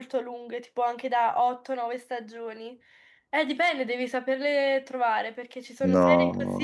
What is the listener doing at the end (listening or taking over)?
listening